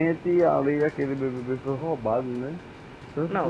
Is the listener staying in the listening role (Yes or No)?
No